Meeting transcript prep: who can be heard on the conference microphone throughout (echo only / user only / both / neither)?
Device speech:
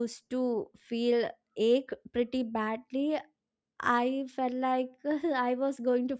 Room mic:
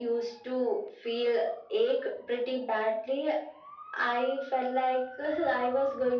echo only